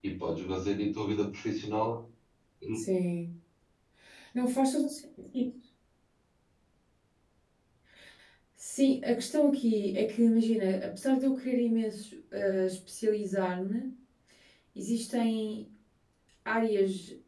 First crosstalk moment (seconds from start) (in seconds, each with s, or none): none